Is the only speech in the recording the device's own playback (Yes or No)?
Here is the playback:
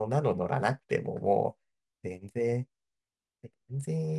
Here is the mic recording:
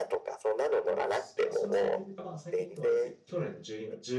No